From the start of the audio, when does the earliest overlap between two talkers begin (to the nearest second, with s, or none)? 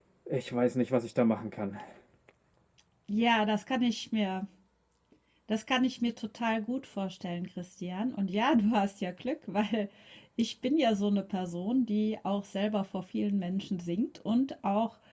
none